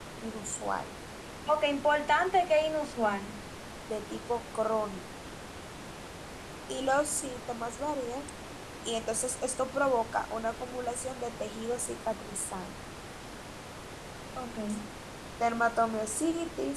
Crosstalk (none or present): none